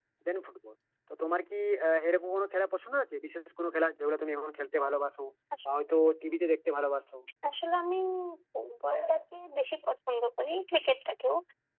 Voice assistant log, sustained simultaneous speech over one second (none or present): none